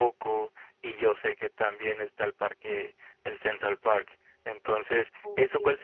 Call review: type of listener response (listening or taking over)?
listening